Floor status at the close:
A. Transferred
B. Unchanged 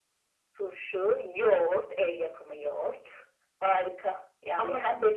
A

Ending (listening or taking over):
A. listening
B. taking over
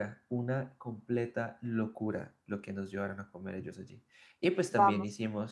B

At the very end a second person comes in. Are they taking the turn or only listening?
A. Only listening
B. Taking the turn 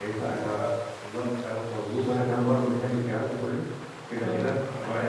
A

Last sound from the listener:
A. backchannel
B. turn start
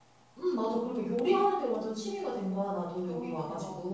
B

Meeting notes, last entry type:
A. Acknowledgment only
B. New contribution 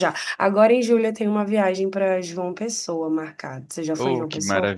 B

